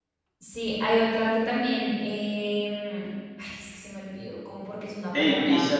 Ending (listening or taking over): taking over